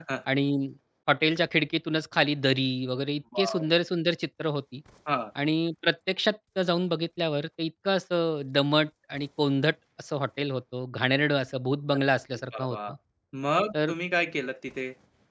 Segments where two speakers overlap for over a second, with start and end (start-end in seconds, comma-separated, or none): none